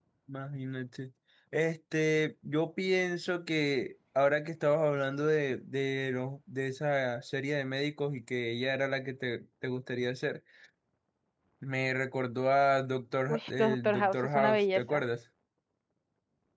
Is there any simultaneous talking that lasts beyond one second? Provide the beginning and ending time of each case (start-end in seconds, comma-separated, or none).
13.3-15.0